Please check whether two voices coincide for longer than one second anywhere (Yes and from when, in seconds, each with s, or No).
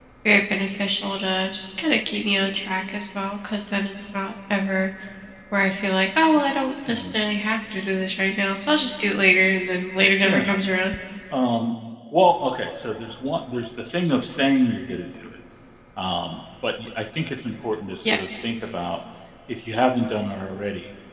No